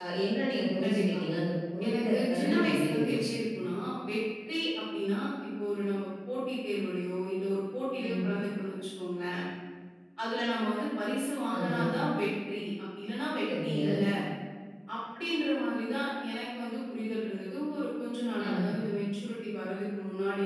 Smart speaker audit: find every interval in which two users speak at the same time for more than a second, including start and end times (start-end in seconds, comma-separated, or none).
1.9-3.3